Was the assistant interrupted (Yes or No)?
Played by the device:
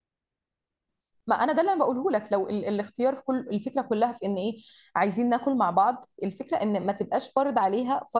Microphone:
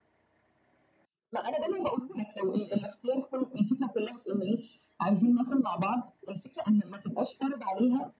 No